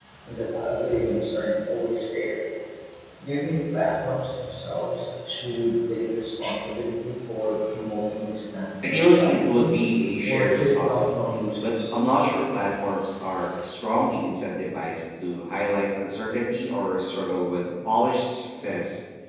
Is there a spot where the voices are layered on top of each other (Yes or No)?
Yes